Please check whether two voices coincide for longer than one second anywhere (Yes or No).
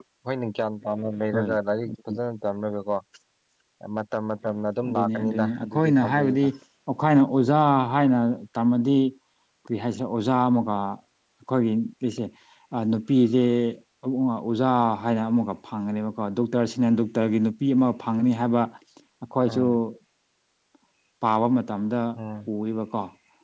Yes